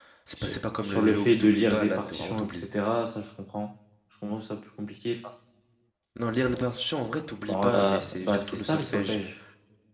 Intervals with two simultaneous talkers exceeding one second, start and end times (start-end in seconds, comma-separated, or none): 0.8-2.6, 7.5-9.2